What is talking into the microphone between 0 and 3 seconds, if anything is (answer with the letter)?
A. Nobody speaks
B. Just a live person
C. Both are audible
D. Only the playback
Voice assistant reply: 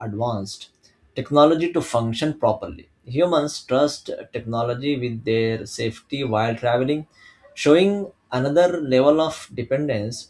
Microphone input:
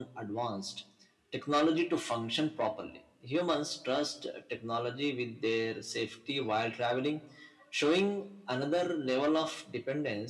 D